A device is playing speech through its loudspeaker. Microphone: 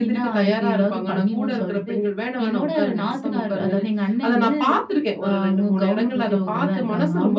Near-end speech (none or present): none